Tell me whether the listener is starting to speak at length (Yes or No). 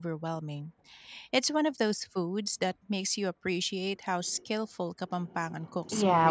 Yes